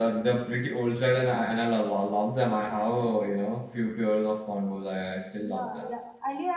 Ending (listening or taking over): taking over